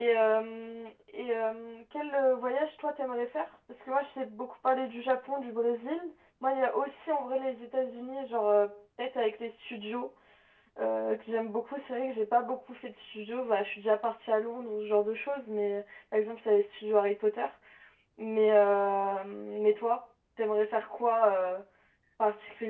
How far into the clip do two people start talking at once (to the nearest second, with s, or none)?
none